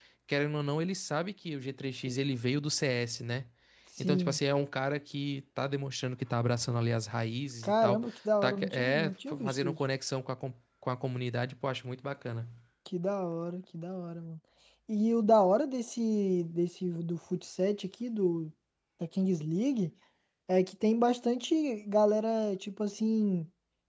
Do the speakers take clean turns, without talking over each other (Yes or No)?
No